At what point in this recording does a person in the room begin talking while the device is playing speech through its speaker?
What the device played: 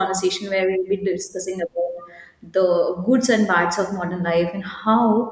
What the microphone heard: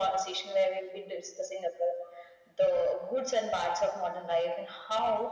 none

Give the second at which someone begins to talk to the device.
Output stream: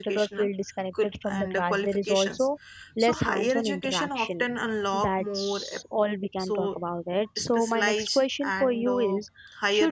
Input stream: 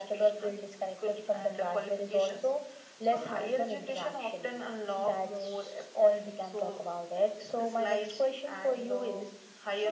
none

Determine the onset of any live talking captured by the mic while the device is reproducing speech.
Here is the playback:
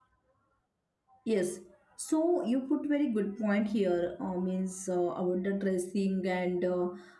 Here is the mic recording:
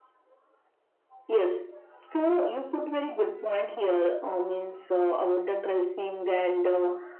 none

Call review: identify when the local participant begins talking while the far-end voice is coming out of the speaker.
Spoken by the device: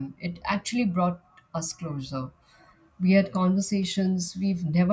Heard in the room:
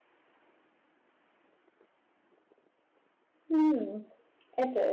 3.5 s

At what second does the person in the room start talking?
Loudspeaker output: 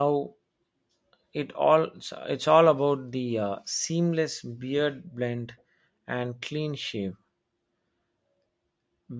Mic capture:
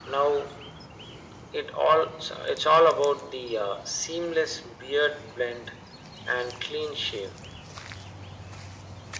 none

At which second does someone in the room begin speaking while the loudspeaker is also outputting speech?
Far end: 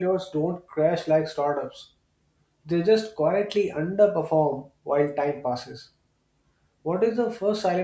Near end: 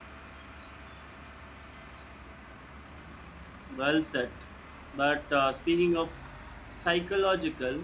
3.7 s

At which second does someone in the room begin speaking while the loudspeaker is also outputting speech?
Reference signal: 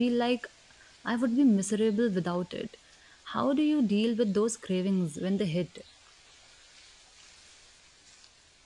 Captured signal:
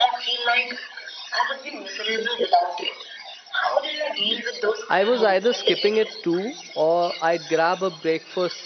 4.9 s

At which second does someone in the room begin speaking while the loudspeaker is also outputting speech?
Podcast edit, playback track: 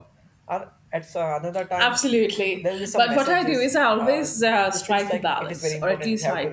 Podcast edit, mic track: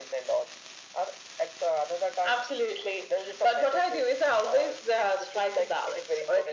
none

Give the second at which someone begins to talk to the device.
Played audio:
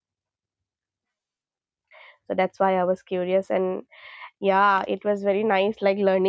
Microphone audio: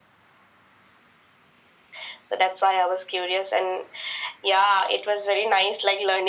none

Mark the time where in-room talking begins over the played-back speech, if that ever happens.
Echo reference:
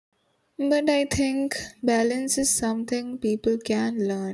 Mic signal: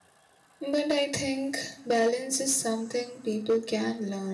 none

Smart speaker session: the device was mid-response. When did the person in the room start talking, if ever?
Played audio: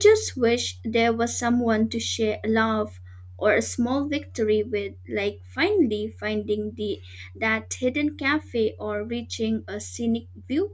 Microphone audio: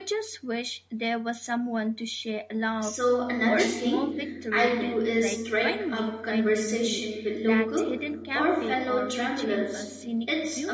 2.8 s

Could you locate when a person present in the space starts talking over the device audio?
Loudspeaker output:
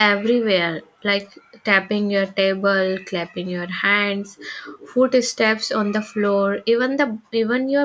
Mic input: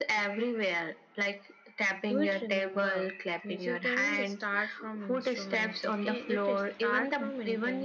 2.1 s

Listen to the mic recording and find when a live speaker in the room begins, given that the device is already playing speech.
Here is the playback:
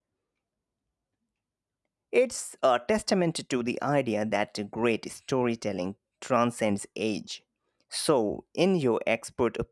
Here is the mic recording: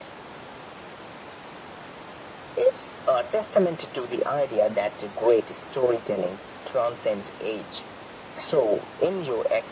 none

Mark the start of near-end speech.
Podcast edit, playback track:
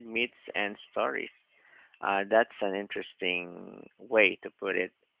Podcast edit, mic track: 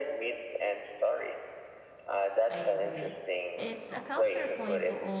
2.5 s

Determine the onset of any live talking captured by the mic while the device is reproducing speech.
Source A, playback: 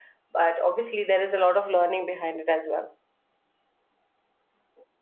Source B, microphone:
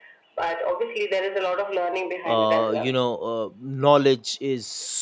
2.2 s

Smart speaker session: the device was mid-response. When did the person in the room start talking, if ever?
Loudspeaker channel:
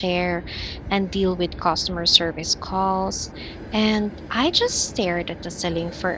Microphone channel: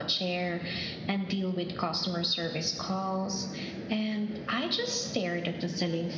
none

